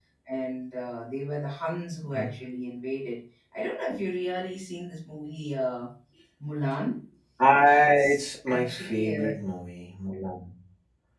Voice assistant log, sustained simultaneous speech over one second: present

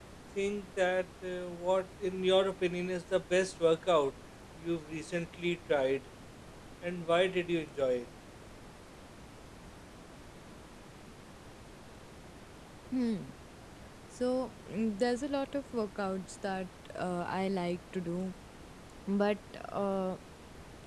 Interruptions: none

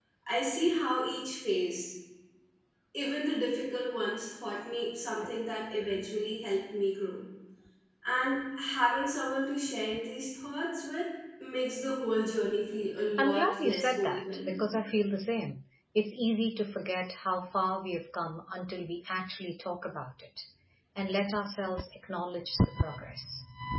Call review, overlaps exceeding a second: present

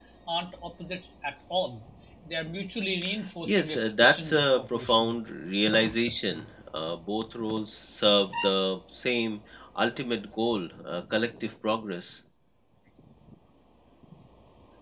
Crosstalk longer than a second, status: present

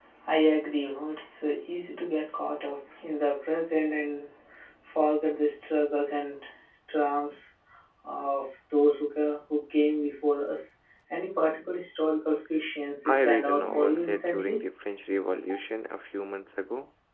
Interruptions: present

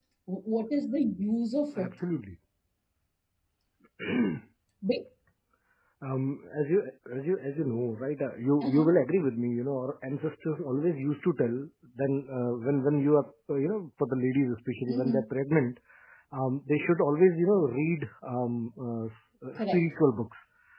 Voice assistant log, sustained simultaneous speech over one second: none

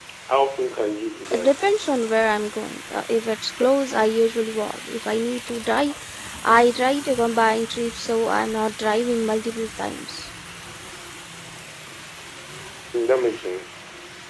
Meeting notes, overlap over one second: none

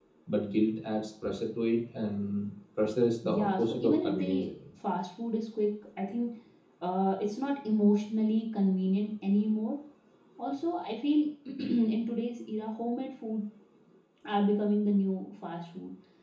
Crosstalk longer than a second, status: present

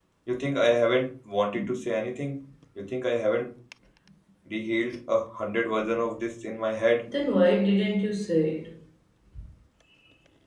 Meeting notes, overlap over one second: none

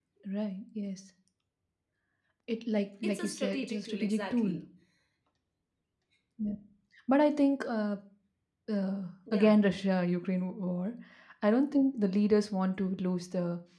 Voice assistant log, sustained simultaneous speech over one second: present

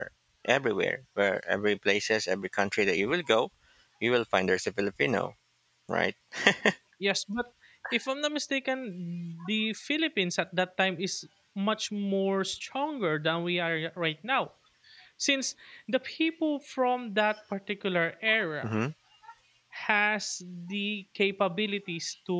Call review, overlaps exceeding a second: none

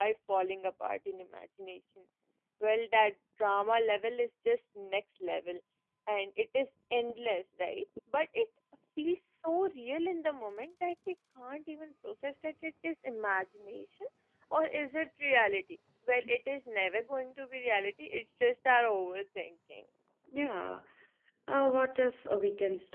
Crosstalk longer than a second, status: none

